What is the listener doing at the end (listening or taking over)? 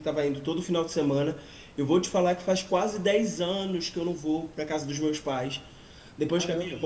listening